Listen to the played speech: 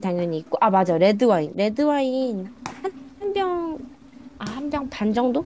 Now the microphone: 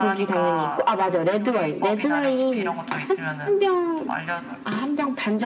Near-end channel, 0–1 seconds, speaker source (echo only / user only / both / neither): both